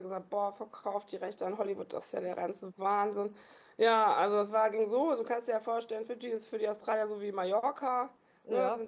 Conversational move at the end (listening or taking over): listening